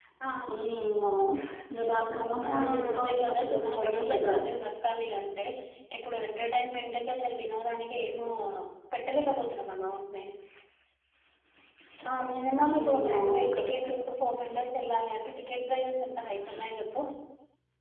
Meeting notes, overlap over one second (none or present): present